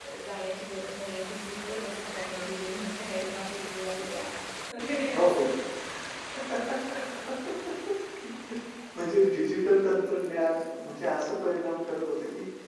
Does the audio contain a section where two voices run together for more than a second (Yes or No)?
No